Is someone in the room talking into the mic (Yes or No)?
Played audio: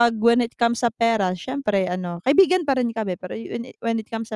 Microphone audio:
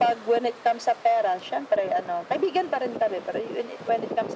No